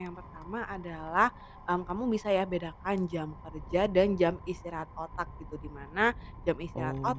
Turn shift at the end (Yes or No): No